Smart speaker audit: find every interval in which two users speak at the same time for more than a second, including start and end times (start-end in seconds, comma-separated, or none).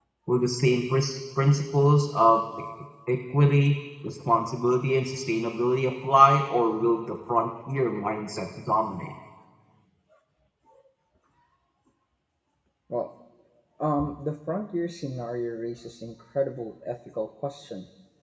none